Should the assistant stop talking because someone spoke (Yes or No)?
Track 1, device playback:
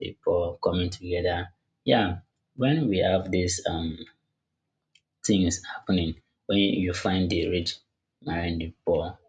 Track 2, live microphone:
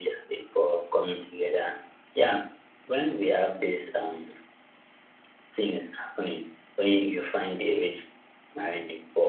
No